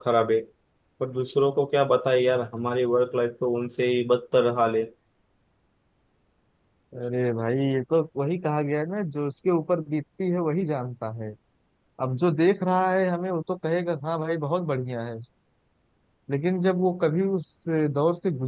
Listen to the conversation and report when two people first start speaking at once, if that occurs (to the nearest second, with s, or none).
none